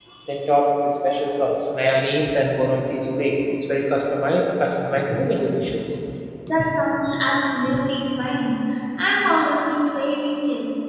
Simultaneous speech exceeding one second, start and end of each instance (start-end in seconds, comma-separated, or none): none